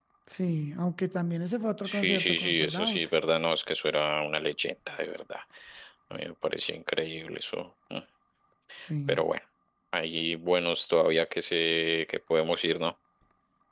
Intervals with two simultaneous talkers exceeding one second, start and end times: 1.8-3.1

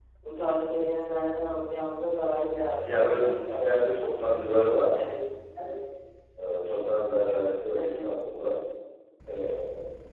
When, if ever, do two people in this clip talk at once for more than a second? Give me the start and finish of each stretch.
2.8-4.1

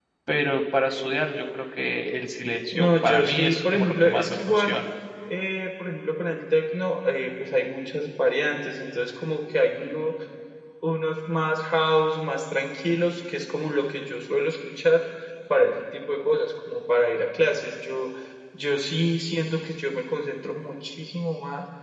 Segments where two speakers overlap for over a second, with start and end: 2.7-4.8

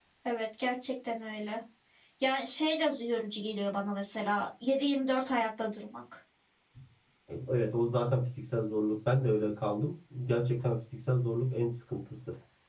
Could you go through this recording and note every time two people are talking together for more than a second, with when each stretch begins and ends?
none

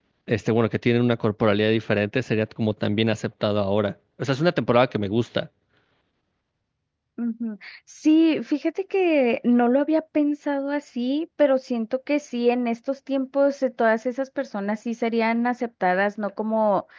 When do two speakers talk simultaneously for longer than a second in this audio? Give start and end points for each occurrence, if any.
none

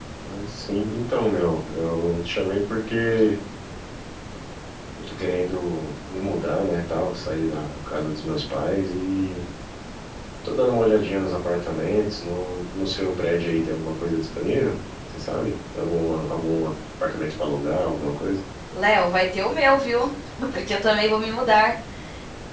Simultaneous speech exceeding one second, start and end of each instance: none

